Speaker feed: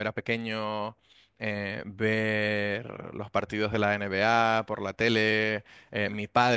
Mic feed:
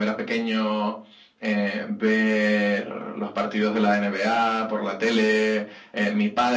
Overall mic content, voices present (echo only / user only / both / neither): echo only